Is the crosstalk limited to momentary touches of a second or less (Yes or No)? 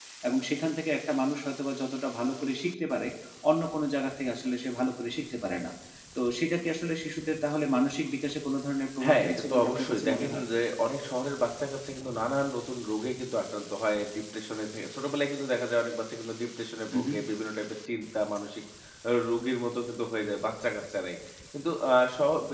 No